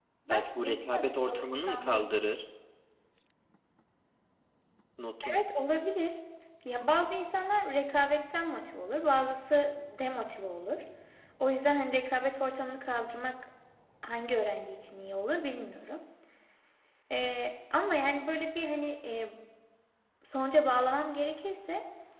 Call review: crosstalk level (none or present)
present